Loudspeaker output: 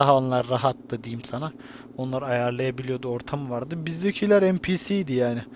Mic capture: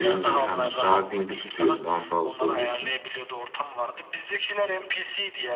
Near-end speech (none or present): present